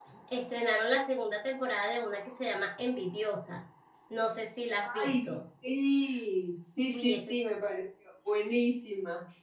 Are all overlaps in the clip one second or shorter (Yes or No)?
Yes